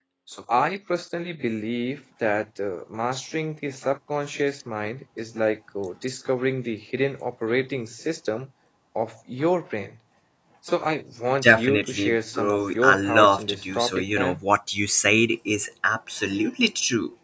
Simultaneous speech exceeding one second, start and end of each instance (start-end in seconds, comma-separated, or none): 11.4-14.4